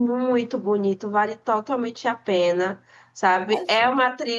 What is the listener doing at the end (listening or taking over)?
listening